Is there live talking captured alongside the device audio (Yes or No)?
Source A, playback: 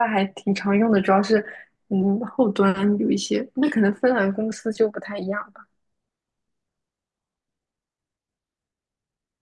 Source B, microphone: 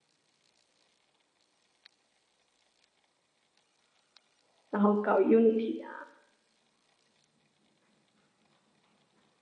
Yes